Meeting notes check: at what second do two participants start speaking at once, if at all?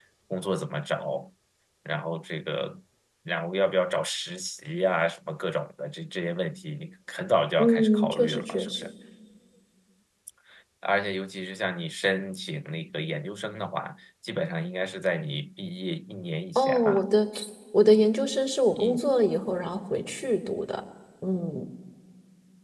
7.6 s

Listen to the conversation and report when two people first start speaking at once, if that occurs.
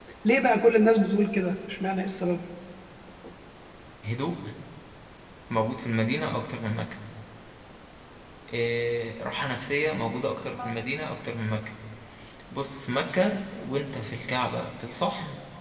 none

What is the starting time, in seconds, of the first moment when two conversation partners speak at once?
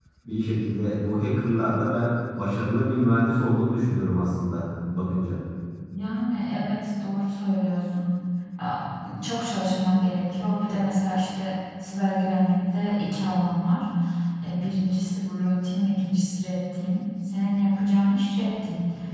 none

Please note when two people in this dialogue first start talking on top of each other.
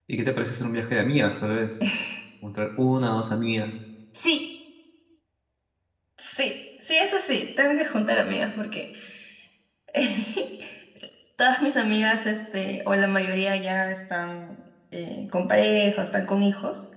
none

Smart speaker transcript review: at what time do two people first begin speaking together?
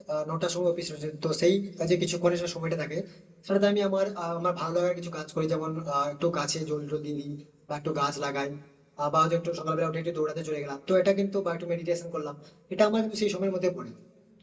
none

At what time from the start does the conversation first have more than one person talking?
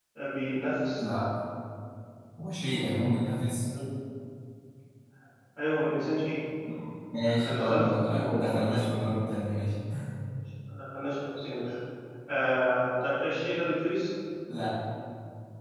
7.6 s

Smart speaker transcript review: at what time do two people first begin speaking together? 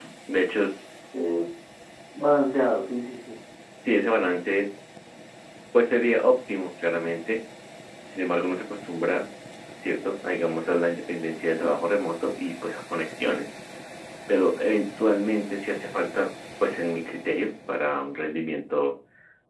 none

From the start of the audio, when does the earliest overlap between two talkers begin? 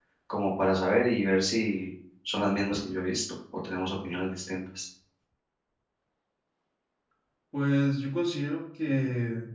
none

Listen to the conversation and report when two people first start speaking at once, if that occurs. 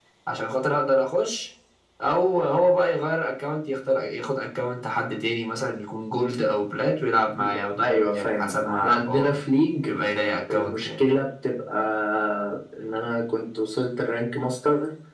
7.4 s

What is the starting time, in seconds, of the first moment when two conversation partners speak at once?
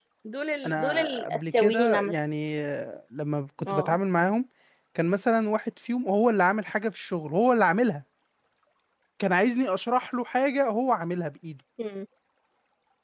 0.7 s

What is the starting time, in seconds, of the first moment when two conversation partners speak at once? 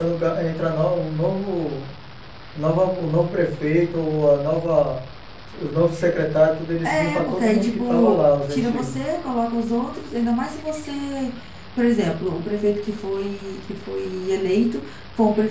6.8 s

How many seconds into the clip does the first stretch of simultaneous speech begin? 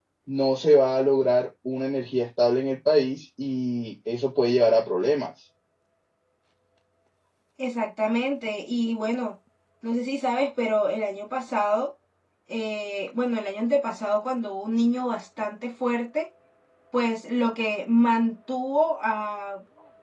none

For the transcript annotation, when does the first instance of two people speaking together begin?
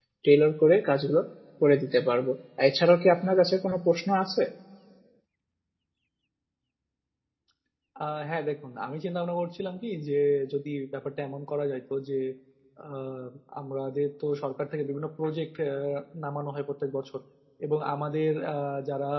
none

